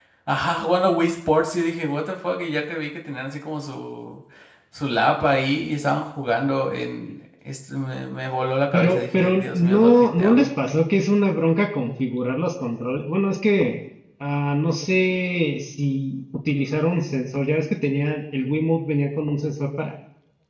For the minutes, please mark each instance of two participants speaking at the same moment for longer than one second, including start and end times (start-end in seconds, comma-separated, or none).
8.7-10.5